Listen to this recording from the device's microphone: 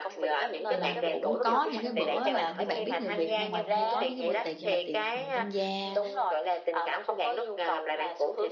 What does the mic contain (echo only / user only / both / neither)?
both